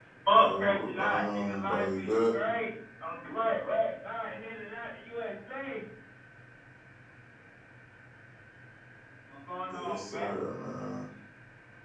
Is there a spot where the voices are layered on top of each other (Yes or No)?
Yes